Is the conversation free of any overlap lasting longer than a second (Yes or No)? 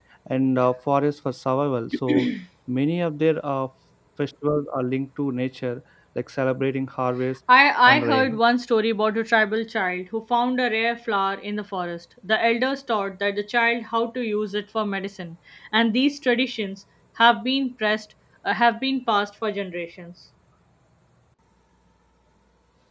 Yes